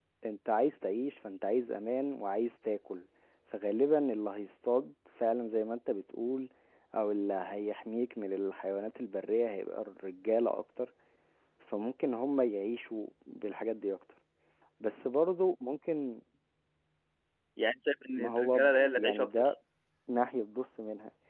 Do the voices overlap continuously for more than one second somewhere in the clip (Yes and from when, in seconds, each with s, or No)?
Yes, from 18.2 s